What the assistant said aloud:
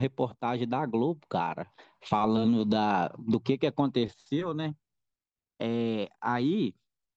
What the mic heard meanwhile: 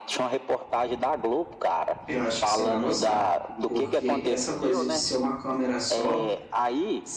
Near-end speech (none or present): present